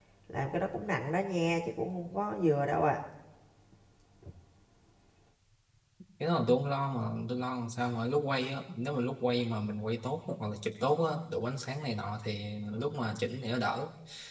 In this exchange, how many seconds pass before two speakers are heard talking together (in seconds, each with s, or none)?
none